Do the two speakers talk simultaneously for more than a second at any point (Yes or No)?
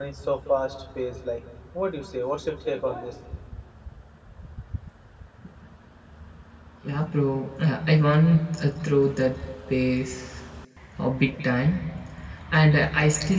No